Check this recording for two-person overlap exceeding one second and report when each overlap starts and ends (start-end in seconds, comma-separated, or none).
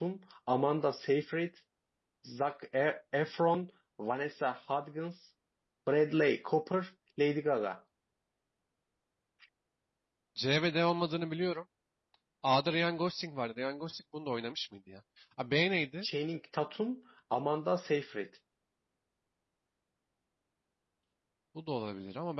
none